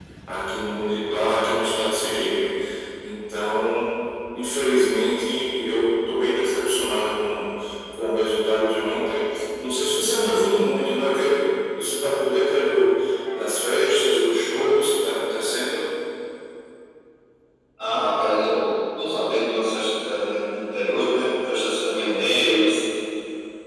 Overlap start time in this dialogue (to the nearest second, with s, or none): none